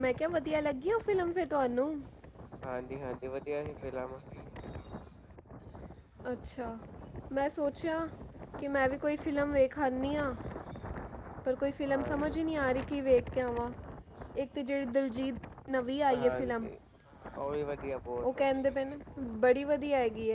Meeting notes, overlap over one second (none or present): none